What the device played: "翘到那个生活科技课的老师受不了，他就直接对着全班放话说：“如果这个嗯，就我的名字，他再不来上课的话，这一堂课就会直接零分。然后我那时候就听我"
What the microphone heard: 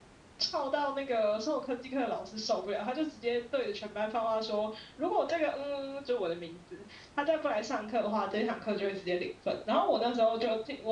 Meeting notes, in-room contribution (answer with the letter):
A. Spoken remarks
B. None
B